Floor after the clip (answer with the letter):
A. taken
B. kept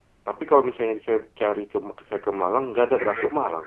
A